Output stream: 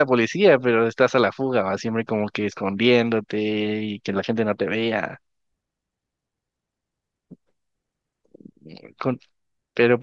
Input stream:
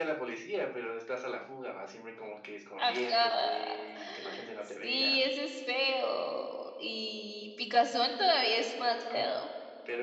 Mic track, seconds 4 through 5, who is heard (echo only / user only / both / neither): both